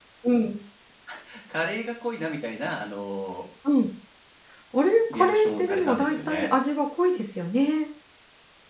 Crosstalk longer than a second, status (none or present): present